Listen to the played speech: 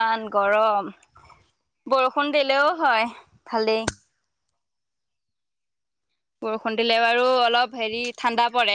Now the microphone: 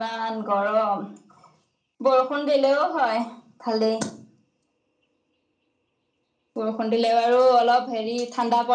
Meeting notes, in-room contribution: none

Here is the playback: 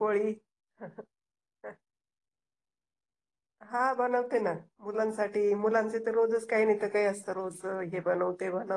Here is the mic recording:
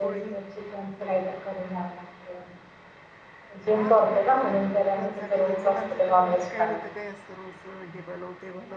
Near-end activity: present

